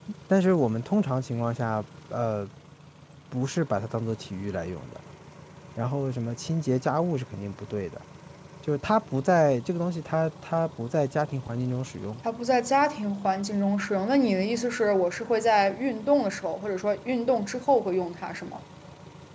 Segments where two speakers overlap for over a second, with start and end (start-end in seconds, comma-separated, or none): none